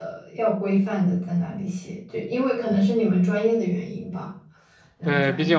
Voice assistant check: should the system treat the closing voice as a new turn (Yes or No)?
Yes